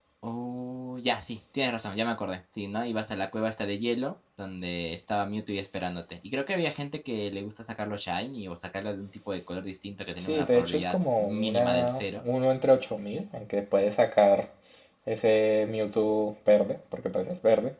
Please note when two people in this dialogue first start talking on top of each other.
10.2 s

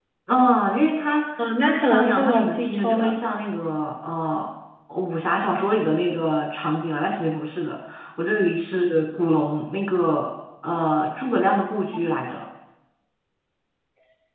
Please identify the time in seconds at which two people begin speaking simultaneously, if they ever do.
1.6 s

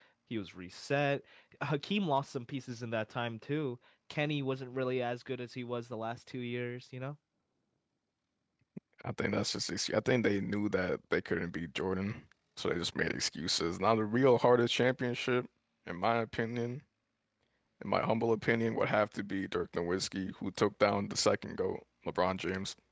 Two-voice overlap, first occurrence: none

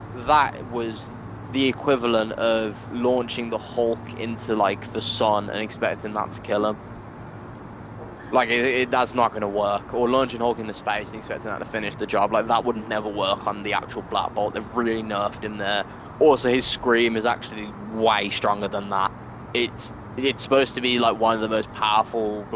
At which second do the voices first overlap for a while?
none

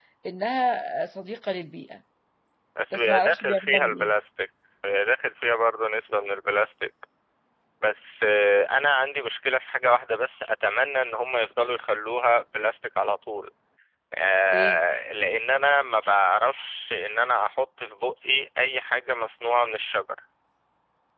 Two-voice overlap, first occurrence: 2.9 s

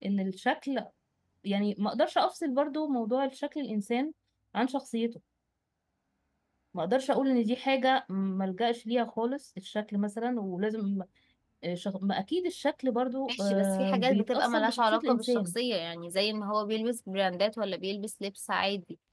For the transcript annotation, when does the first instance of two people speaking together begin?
13.3 s

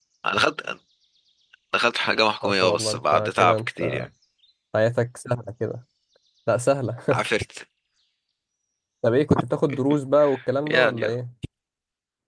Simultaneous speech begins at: 2.4 s

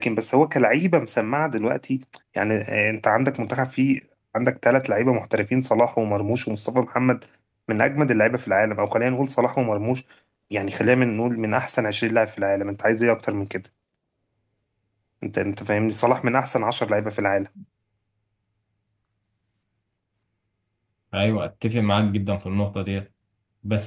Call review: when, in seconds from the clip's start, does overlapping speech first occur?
none

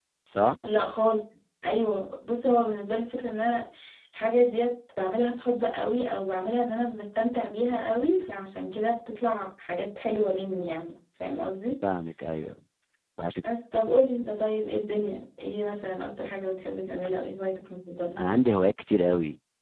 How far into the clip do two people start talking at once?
none

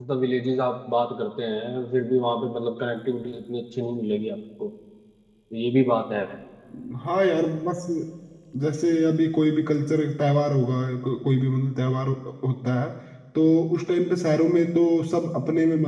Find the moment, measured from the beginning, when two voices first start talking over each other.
none

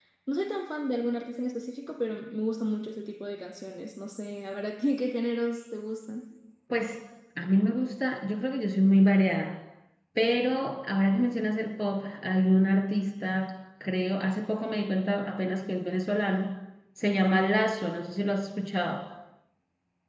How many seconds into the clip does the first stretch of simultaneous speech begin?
none

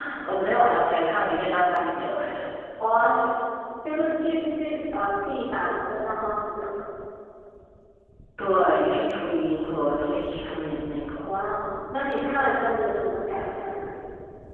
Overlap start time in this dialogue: none

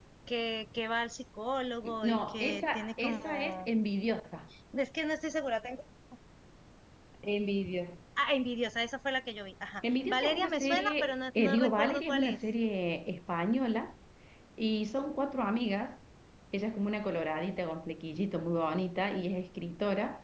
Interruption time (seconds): 2.0 s

